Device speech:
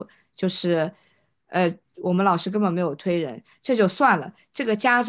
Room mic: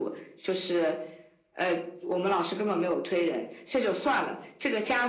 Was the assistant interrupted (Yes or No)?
No